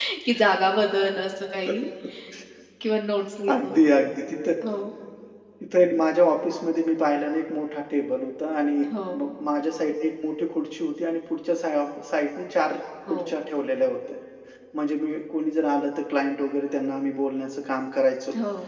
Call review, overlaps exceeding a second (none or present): none